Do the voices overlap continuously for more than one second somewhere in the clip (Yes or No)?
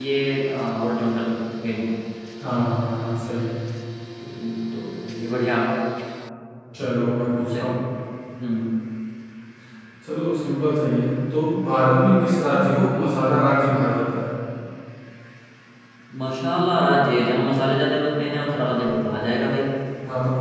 No